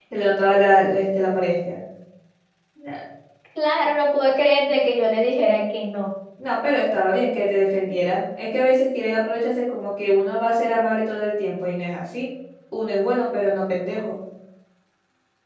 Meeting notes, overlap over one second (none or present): none